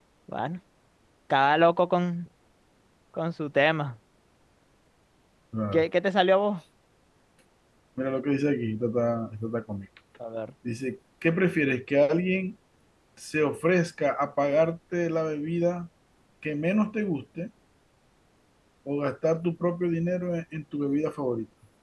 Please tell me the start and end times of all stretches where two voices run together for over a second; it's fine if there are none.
none

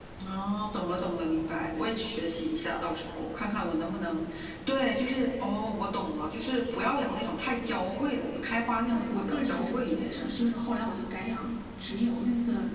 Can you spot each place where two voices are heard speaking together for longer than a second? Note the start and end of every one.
8.9-10.5

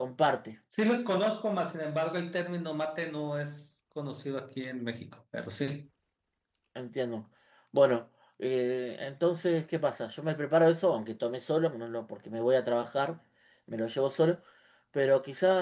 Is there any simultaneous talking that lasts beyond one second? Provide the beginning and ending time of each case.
none

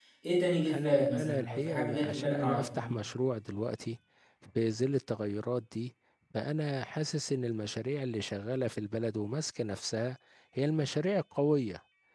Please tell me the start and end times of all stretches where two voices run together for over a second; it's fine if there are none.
0.7-2.9

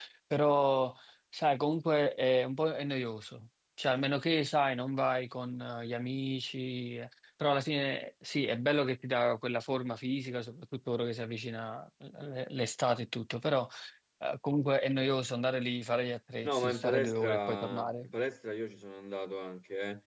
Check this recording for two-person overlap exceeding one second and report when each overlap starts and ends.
16.4-18.1

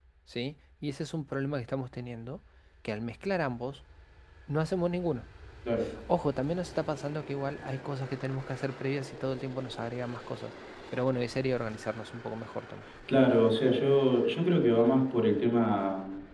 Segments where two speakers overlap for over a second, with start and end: none

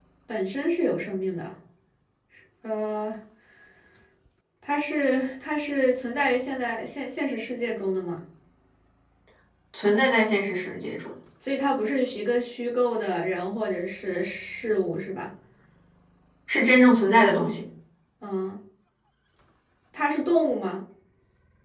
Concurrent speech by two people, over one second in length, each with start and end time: none

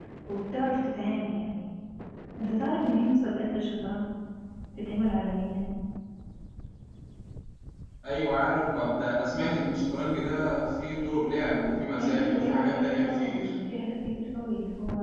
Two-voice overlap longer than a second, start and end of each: 12.0-13.5

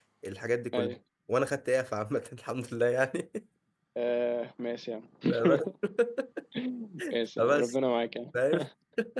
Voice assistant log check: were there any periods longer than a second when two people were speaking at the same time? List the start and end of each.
none

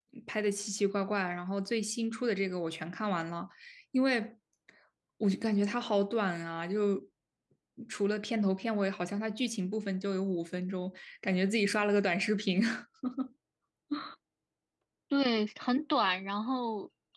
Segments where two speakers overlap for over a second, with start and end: none

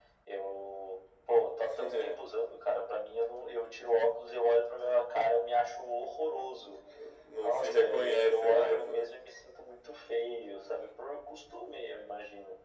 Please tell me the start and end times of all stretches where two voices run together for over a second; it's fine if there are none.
7.4-9.1

